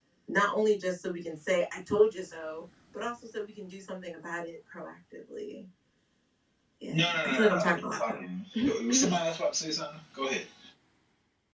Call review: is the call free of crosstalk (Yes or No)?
No